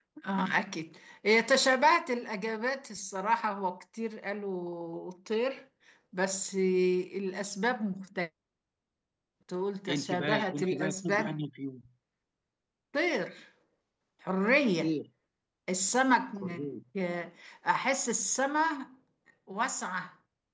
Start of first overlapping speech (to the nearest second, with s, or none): 10 s